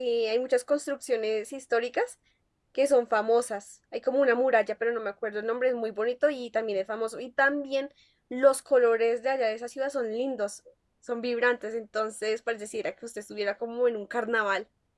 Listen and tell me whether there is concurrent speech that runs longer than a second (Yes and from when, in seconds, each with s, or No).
No